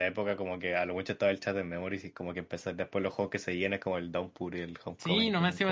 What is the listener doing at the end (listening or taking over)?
taking over